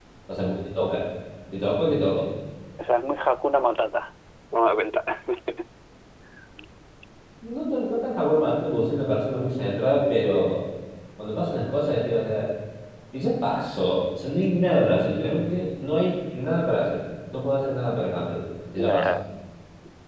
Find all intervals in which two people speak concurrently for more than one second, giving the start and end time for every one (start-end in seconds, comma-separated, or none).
none